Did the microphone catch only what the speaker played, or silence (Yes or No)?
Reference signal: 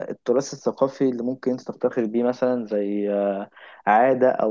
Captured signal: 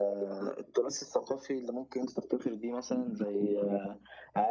Yes